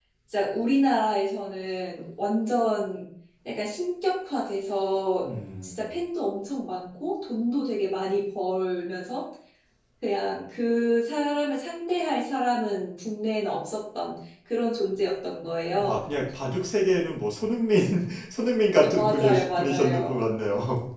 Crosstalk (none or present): present